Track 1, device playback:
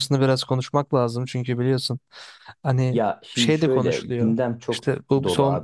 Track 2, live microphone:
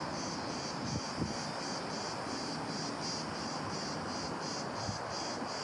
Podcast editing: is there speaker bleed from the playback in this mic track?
No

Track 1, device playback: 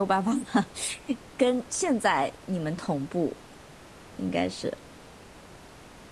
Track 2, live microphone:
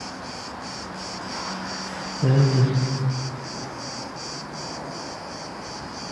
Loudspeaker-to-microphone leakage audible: No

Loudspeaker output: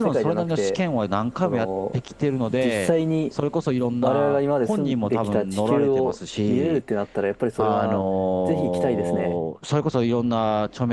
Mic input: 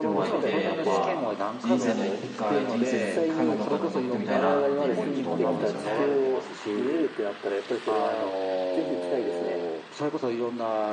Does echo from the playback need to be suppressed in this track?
Yes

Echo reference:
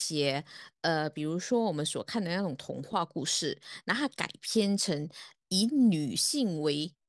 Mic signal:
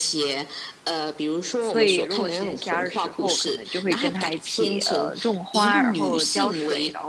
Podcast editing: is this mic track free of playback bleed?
No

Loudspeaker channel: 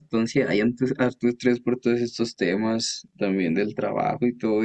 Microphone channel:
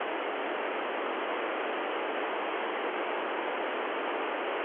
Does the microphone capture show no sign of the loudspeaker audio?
Yes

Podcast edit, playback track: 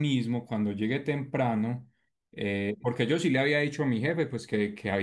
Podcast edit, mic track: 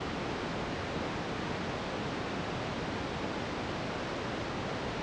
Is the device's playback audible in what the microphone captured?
No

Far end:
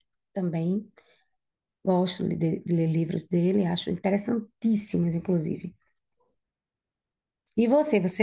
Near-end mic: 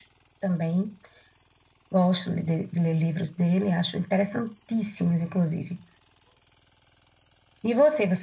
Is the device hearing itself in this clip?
Yes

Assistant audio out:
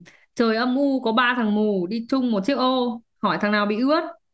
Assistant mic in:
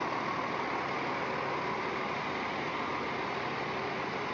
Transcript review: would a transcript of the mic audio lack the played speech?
Yes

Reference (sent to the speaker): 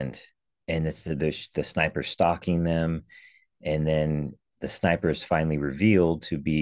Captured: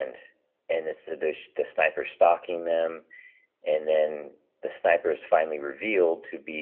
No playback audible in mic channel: No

